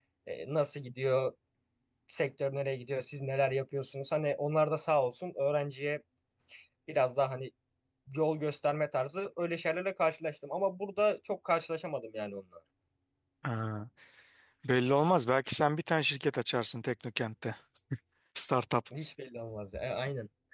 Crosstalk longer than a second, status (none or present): none